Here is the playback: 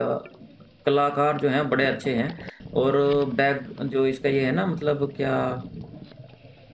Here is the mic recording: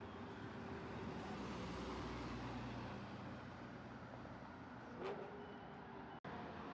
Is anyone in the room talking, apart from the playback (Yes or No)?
No